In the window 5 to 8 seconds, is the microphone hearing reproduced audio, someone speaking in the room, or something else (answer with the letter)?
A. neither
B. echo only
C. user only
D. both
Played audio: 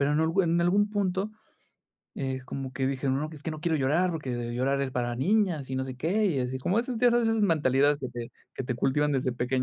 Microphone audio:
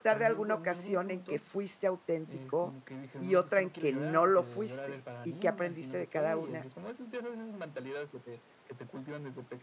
D